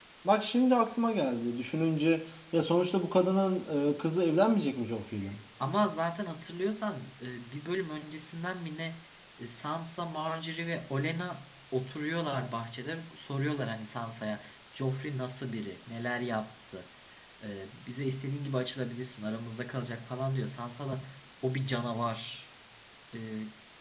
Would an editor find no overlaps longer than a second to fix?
Yes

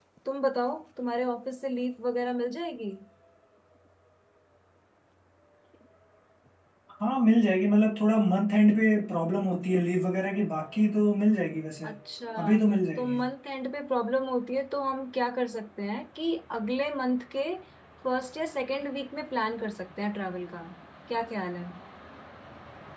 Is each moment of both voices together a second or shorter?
Yes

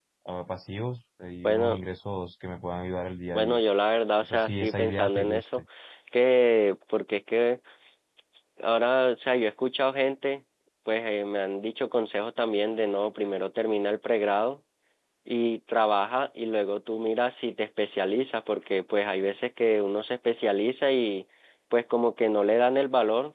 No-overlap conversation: No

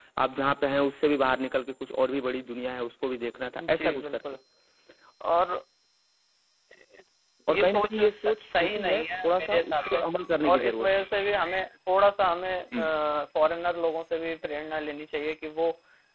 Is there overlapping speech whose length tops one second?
Yes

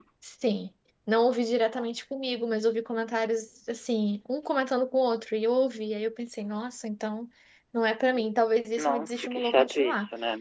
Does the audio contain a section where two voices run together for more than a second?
Yes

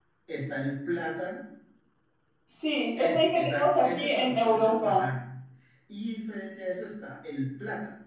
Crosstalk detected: Yes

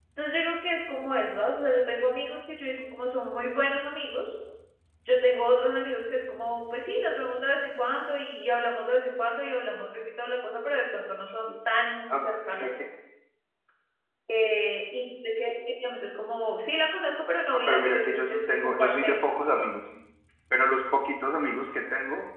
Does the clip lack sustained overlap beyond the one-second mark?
No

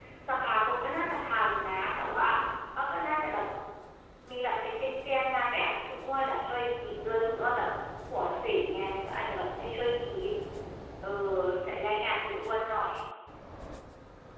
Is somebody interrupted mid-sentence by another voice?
No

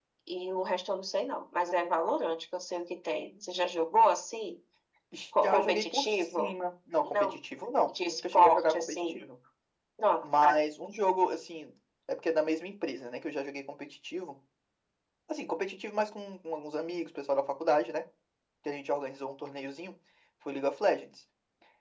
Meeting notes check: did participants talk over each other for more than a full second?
Yes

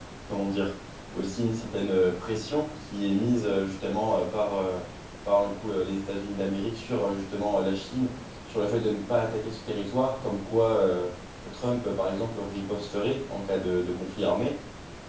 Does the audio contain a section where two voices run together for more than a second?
No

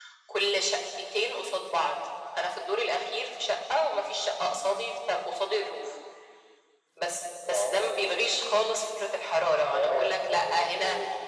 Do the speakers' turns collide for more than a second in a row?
Yes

